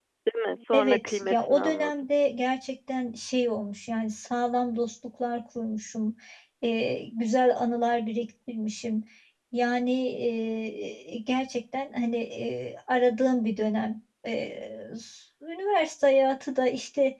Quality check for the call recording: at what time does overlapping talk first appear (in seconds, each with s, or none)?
0.7 s